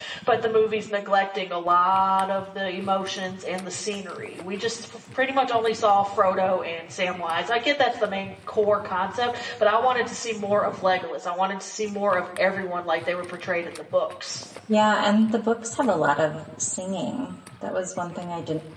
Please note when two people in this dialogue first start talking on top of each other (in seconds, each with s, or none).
none